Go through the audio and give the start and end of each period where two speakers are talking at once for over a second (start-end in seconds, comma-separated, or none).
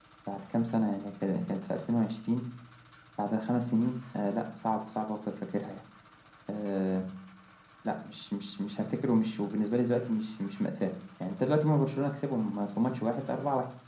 none